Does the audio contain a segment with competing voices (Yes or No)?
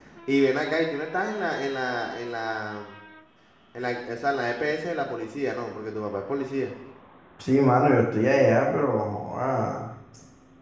No